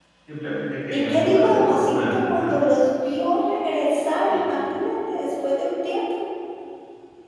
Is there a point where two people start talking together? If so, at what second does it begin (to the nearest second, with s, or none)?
1 s